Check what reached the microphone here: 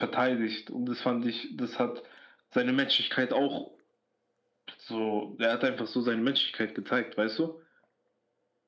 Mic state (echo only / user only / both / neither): echo only